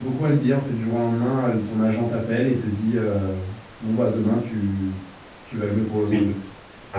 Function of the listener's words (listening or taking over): taking over